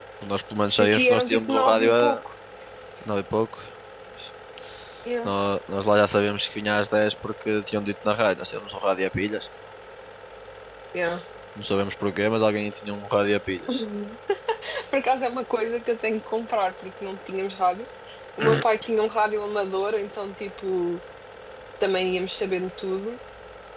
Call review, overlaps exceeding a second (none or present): present